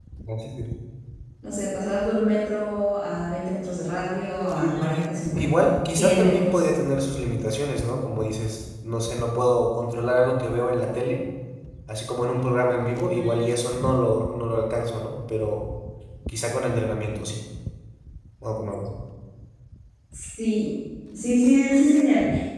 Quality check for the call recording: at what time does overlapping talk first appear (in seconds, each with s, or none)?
4.6 s